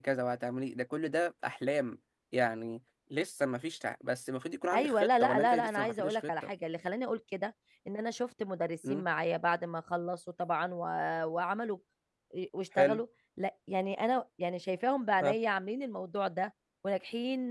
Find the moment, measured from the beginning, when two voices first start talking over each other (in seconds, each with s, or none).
4.7 s